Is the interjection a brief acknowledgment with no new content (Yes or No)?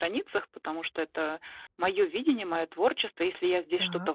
Yes